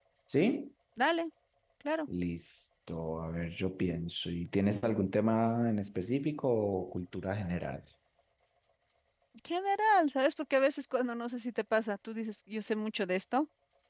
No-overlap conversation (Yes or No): Yes